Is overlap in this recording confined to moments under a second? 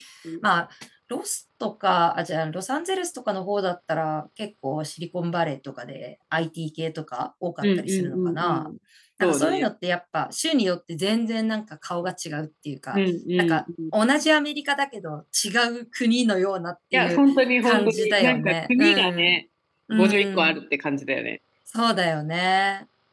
No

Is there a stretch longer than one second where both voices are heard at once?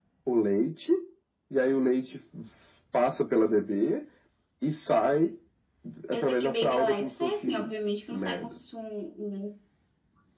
Yes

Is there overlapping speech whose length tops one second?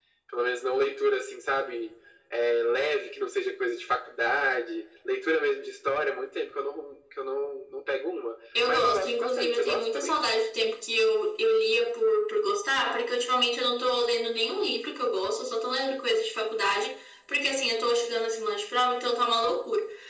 Yes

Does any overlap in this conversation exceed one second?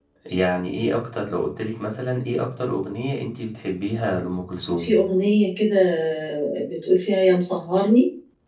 No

